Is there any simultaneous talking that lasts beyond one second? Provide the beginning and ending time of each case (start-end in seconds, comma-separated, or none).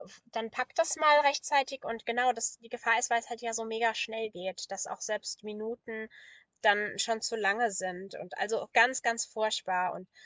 none